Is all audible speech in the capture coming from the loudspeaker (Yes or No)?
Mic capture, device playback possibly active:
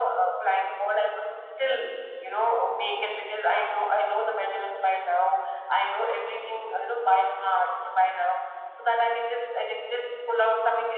Yes